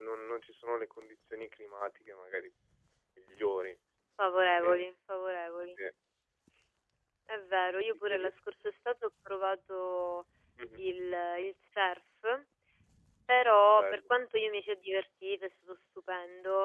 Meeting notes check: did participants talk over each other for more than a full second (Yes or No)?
No